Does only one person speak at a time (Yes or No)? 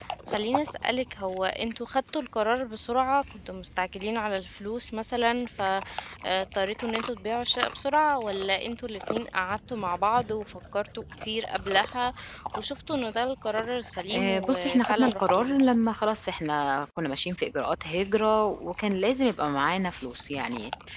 No